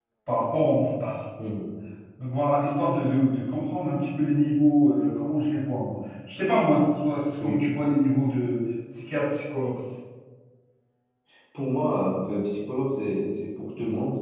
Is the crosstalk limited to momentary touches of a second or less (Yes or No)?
Yes